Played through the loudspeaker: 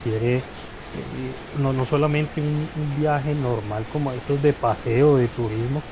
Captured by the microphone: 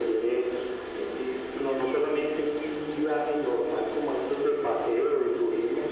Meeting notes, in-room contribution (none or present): none